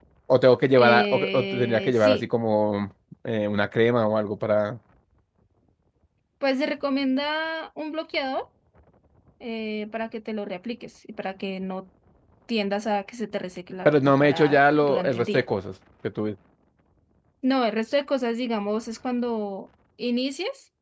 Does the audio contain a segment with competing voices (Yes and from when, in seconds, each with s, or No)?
Yes, from 0.7 s